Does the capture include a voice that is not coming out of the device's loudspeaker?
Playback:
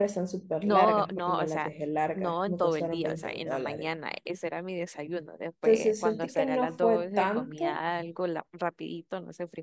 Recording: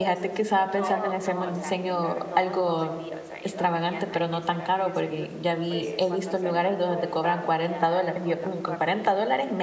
Yes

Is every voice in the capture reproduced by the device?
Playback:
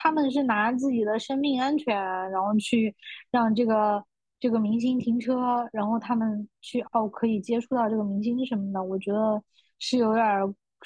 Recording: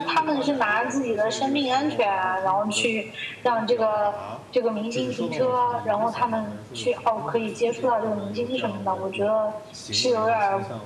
No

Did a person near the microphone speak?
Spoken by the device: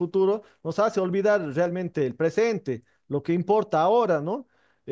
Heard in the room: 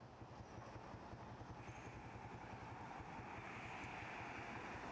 No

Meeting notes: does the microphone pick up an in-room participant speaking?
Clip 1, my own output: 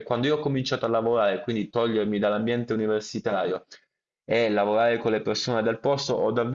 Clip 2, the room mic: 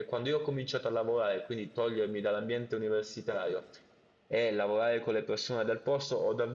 No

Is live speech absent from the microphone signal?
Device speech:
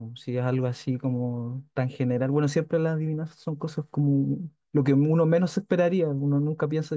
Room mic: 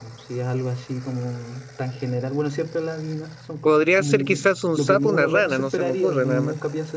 No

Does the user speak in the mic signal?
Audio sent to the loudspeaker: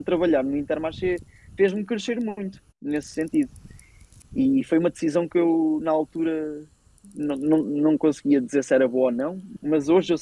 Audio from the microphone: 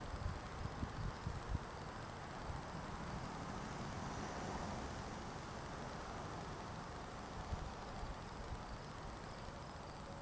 No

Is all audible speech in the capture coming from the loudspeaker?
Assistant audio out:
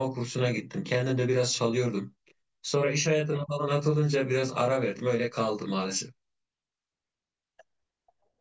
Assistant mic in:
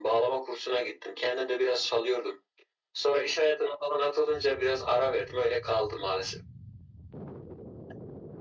Yes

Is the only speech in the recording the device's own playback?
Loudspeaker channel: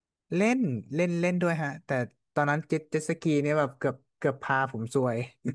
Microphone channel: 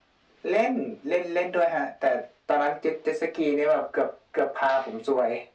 Yes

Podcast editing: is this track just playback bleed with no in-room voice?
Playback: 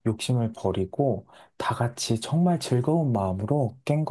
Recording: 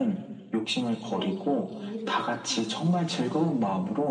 No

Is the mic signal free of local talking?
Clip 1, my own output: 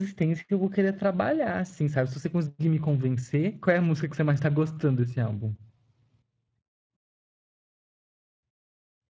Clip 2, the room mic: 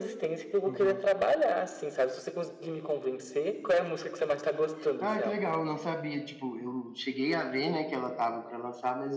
No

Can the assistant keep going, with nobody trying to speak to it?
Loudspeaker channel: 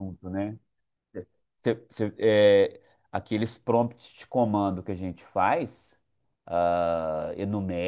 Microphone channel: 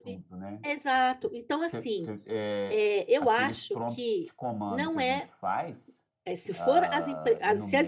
No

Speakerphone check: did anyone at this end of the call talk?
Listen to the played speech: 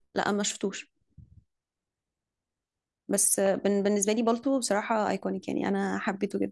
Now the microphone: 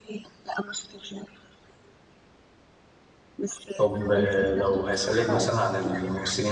Yes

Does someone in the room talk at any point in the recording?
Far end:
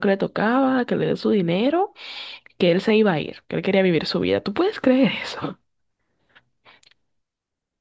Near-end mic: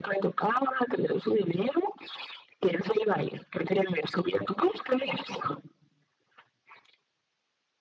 No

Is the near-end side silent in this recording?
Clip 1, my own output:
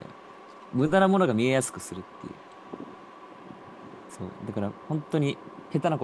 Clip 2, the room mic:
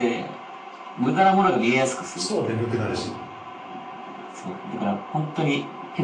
No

